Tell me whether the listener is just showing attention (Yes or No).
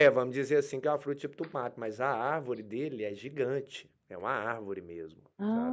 No